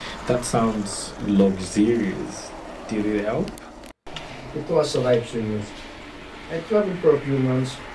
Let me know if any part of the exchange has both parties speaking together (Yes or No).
No